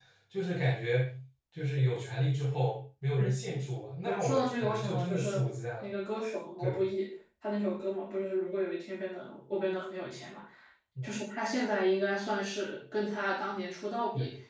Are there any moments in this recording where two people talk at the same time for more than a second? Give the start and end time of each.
4.0-5.4

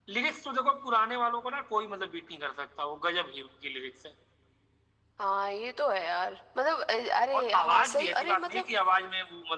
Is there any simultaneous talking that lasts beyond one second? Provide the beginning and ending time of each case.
7.3-8.7

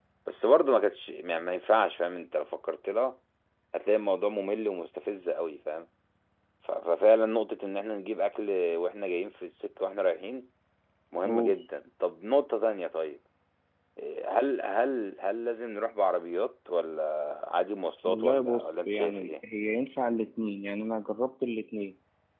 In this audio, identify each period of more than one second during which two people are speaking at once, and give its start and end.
18.0-19.3

